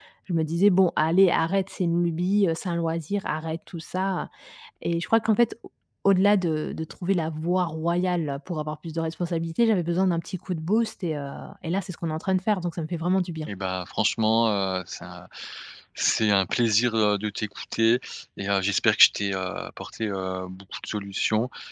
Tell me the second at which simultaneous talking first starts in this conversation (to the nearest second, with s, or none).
none